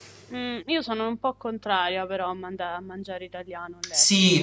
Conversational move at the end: taking over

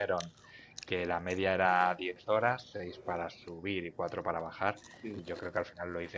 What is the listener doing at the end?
listening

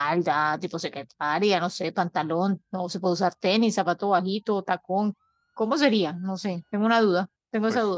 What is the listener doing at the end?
taking over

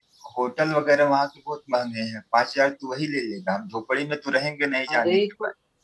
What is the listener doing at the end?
taking over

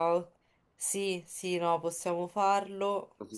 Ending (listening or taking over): taking over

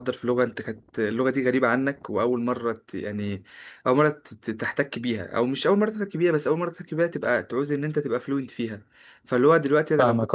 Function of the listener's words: listening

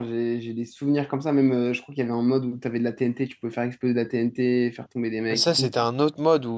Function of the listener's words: taking over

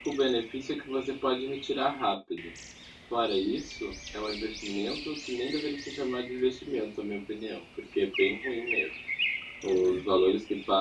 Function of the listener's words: listening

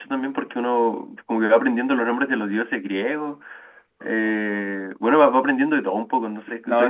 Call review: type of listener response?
taking over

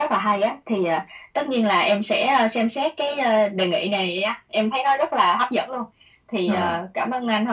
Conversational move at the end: listening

